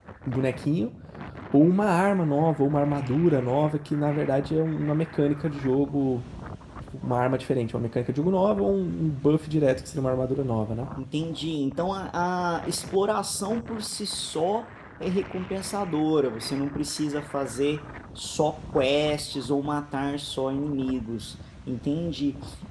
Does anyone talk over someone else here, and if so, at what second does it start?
none

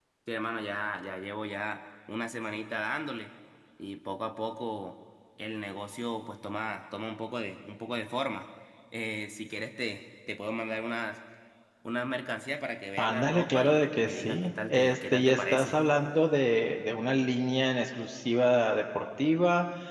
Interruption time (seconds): 13 s

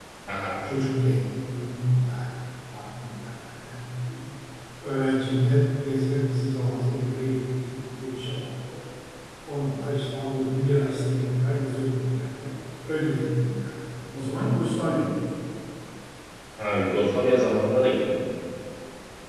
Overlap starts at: none

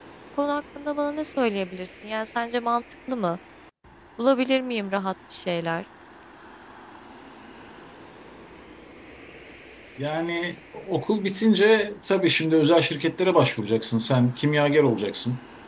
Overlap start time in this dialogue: none

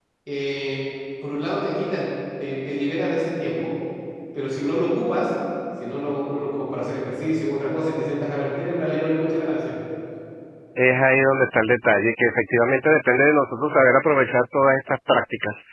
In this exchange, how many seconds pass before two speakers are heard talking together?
none

